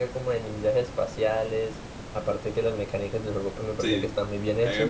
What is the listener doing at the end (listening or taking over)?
taking over